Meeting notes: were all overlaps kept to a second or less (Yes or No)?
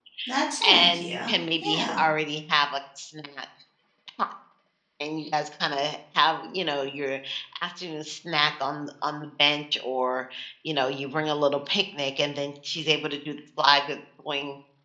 No